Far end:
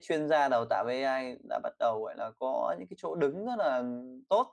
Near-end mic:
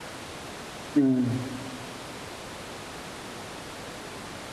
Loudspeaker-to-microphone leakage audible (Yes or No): No